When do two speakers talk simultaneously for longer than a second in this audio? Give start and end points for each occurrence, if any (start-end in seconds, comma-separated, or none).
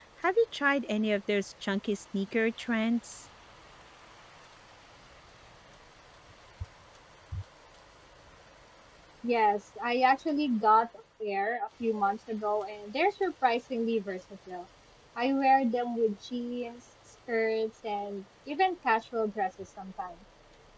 none